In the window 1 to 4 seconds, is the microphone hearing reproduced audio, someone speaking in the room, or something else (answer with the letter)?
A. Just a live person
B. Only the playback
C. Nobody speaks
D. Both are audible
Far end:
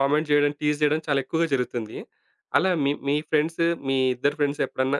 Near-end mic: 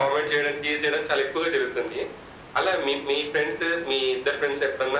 B